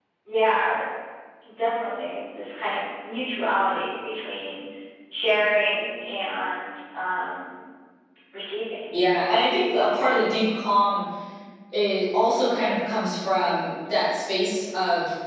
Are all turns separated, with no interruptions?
Yes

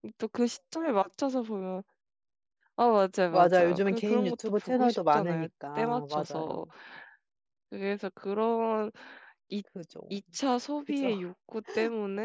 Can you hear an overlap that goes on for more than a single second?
Yes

